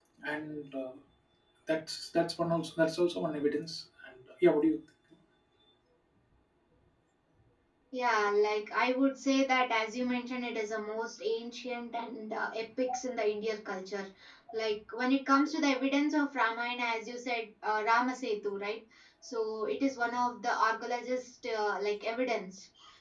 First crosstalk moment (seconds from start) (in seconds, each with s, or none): none